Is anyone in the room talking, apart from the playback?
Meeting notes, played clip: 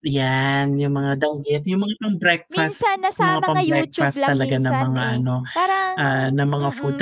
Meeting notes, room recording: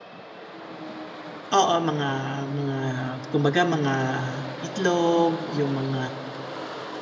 Yes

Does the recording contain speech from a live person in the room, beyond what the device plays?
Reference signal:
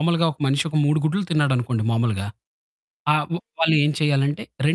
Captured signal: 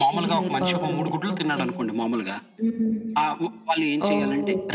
Yes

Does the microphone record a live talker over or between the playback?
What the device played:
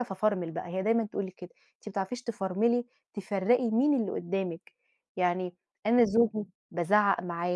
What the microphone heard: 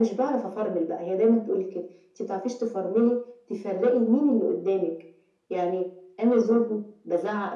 No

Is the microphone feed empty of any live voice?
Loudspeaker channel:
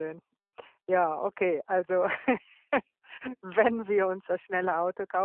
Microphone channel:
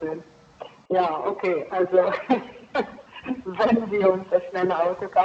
Yes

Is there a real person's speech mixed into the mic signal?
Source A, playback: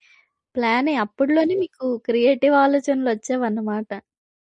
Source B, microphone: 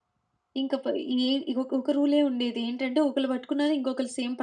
Yes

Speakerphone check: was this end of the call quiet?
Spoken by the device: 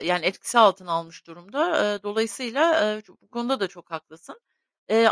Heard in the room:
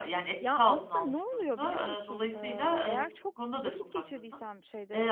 No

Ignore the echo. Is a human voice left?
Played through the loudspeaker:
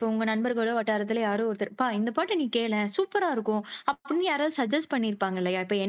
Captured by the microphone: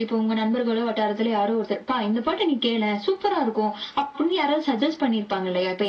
No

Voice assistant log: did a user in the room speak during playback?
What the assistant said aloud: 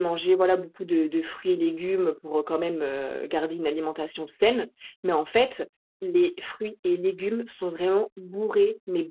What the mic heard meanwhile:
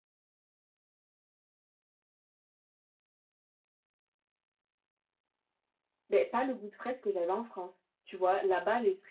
Yes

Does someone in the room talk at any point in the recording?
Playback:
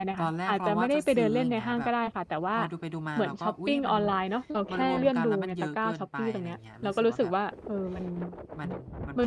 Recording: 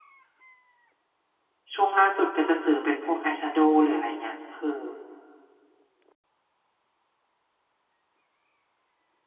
Yes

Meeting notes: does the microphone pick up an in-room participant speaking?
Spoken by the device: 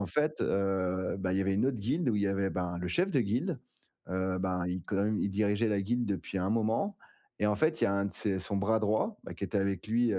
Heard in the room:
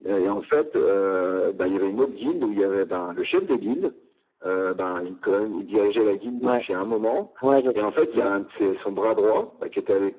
Yes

